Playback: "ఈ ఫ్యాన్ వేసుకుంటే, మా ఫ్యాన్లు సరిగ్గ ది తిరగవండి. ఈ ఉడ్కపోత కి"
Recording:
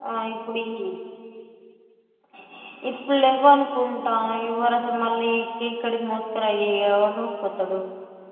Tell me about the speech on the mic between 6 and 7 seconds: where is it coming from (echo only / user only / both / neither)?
user only